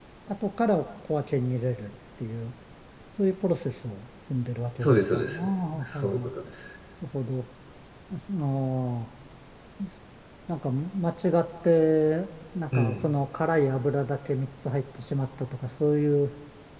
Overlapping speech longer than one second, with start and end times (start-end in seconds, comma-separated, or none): 4.8-6.2